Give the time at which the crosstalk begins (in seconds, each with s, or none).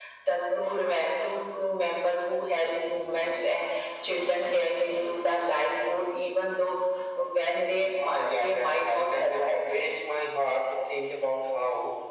8.0 s